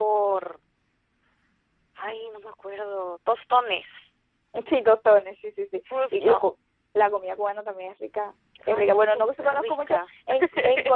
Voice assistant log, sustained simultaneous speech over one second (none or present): present